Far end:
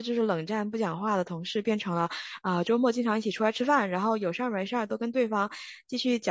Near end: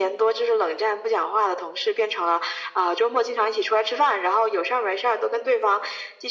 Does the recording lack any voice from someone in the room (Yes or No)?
Yes